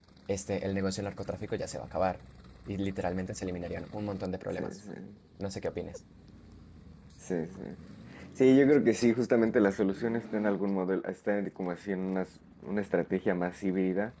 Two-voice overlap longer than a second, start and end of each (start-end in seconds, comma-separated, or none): none